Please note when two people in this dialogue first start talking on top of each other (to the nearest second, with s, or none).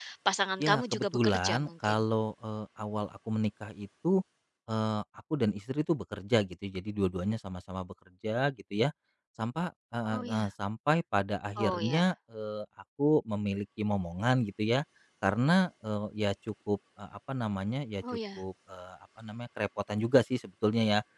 1 s